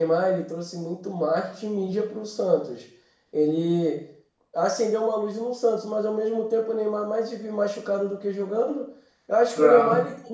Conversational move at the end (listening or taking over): listening